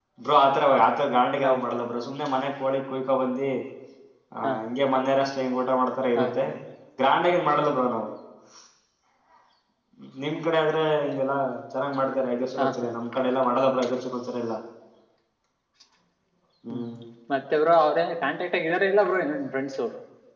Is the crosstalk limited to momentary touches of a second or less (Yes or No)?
Yes